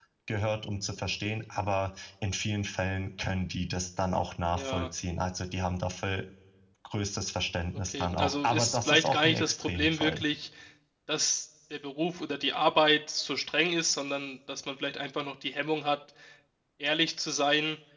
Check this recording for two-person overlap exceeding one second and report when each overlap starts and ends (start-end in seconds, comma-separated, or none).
7.9-10.2